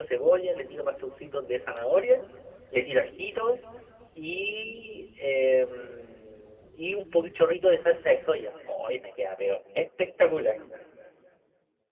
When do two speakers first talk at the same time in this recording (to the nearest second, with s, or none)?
none